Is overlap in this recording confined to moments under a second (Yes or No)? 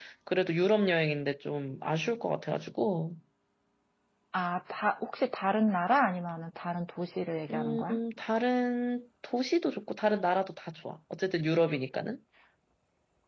Yes